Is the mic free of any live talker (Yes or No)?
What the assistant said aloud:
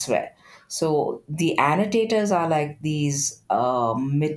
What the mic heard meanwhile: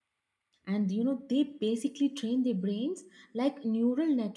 No